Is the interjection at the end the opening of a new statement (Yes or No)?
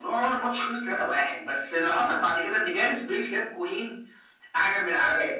No